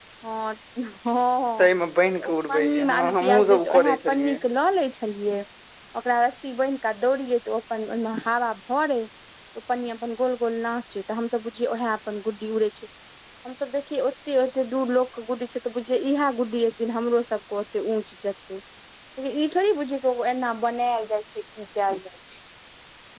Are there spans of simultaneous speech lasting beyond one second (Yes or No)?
Yes